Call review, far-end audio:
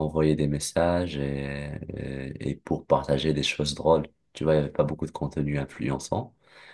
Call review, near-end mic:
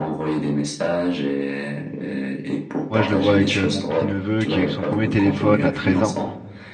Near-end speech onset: 2.9 s

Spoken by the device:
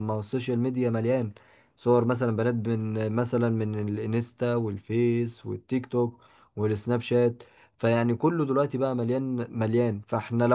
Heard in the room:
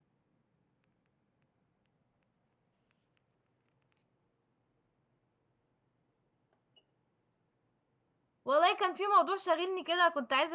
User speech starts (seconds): 8.4 s

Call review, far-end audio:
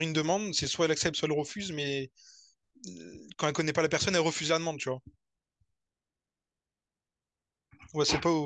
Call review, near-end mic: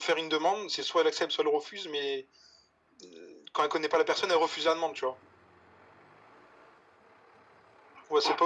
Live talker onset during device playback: none

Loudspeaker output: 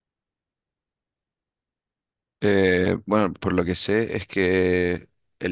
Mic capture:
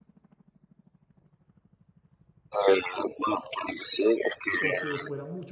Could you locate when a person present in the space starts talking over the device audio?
4.6 s

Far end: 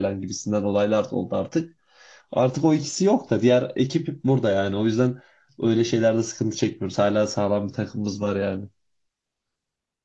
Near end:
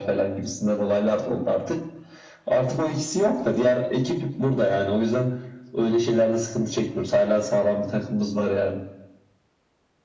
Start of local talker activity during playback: none

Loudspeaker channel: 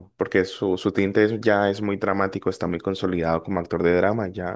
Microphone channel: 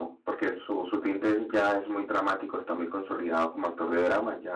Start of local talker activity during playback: none

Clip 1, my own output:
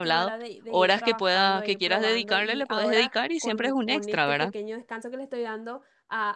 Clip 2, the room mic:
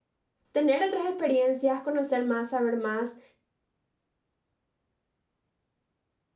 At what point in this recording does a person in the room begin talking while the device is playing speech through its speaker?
0.5 s

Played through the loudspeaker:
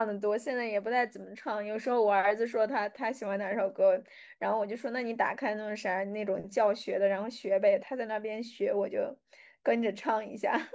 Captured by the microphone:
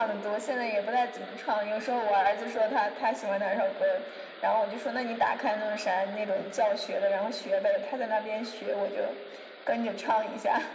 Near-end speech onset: none

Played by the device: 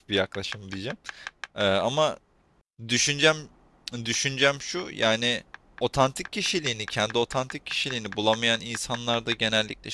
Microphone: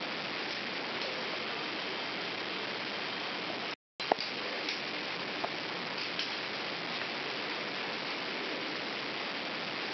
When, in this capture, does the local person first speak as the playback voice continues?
none

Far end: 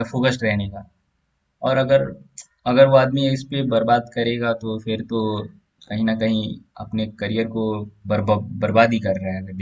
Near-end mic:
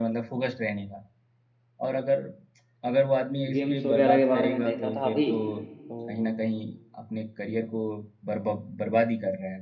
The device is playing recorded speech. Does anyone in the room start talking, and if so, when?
3.5 s

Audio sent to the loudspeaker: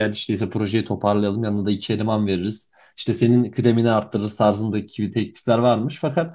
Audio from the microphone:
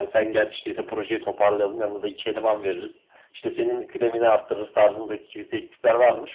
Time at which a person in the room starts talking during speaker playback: none

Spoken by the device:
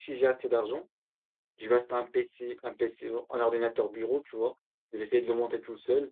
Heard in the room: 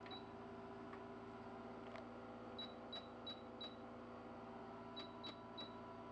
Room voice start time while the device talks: none

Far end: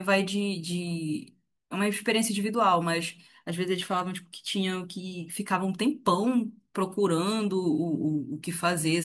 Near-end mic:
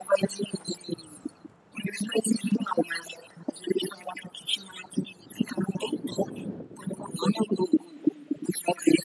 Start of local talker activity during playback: none

